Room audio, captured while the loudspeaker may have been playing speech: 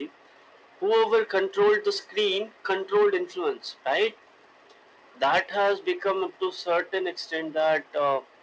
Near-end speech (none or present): none